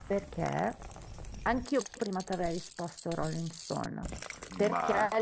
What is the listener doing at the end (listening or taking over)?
listening